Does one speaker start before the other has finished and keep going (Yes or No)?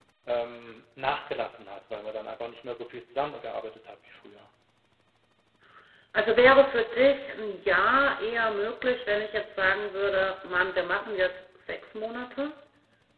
No